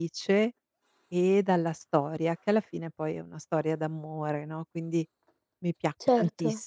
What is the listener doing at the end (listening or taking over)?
listening